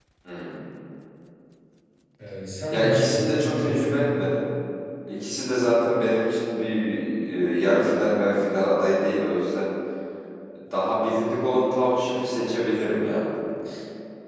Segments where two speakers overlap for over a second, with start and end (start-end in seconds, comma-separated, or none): 2.7-4.0